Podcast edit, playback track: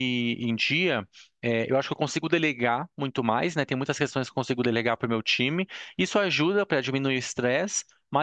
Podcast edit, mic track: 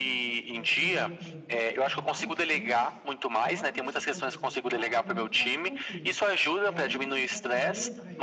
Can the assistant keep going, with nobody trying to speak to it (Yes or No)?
No